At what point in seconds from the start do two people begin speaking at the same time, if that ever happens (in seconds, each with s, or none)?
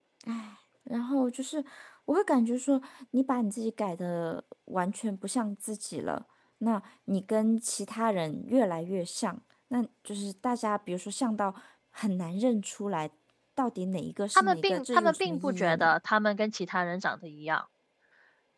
14.3 s